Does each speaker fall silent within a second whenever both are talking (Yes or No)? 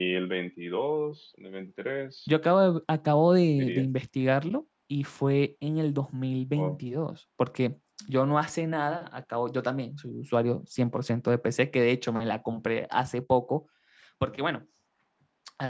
Yes